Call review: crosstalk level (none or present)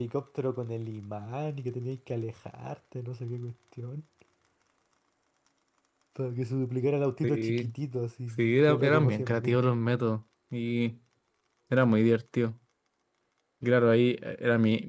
present